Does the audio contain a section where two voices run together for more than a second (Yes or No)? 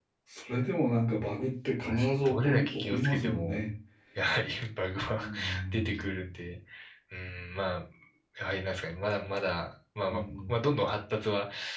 Yes